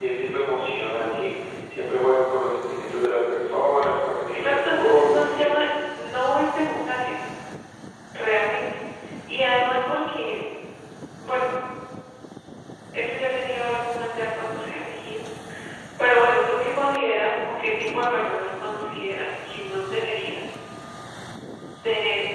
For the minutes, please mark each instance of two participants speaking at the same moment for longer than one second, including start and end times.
4.3-5.7

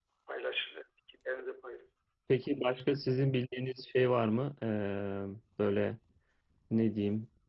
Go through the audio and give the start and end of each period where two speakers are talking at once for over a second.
none

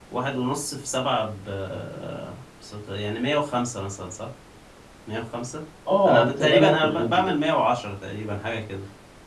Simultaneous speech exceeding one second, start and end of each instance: 6.1-7.3

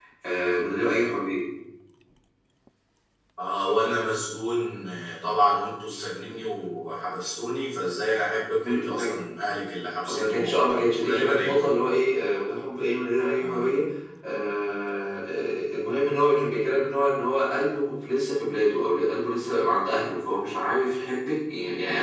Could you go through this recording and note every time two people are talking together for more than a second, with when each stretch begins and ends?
10.1-11.8

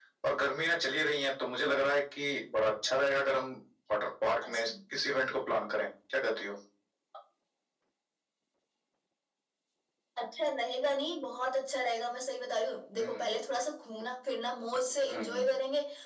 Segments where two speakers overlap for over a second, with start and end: none

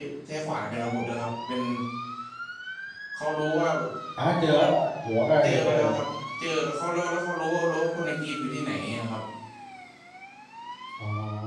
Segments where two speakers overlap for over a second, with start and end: none

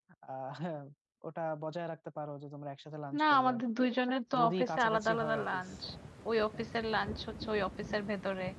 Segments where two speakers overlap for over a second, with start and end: 4.4-5.7

